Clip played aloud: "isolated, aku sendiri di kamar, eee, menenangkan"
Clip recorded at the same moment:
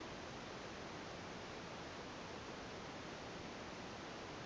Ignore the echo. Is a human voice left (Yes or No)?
No